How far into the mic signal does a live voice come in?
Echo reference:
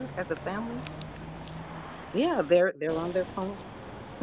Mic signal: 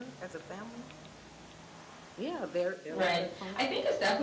3 s

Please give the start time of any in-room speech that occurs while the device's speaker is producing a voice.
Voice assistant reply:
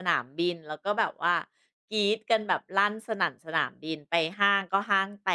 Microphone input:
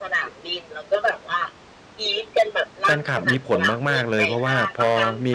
3 s

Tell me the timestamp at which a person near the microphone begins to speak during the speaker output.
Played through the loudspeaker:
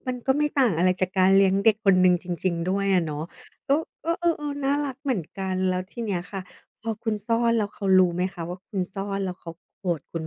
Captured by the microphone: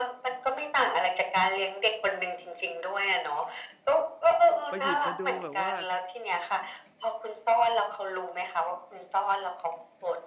5 s

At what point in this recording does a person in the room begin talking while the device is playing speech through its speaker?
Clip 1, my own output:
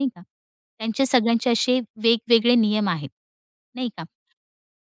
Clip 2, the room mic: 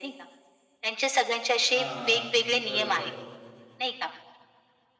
2 s

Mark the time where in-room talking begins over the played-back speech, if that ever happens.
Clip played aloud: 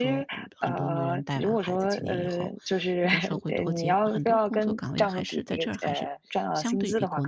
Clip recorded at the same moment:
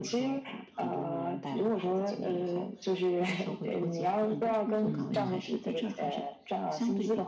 5 s

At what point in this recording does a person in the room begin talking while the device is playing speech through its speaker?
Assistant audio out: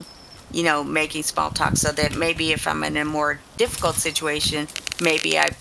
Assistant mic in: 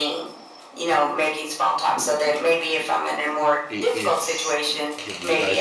4 s

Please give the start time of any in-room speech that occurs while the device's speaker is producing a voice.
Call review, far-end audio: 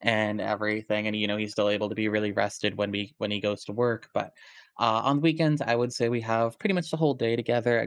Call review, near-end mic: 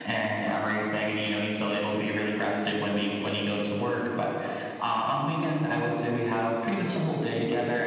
none

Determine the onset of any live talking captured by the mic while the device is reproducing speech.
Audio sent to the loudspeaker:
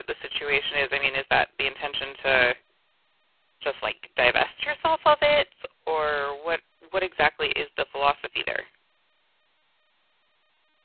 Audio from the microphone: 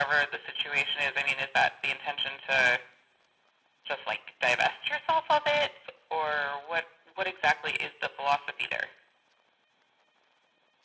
none

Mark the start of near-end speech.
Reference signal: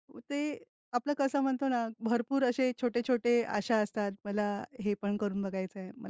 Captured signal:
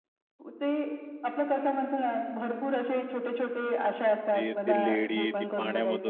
4 s

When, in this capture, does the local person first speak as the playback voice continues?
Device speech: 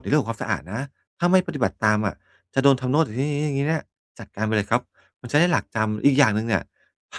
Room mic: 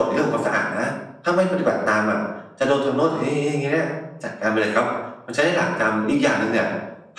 none

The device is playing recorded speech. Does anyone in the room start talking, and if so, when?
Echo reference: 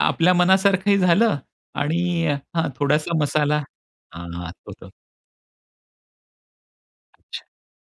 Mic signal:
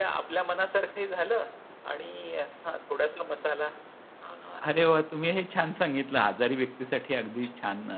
5 s

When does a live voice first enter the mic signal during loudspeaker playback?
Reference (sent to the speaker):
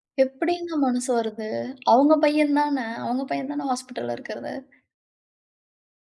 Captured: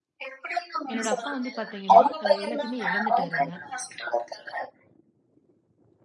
1 s

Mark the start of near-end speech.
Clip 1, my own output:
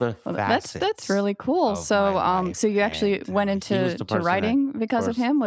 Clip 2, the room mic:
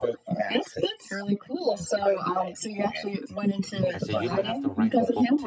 4 s

